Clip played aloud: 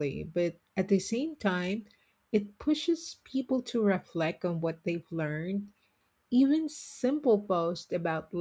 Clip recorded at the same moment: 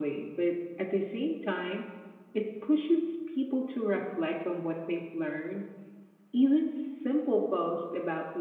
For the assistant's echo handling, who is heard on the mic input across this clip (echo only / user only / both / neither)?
echo only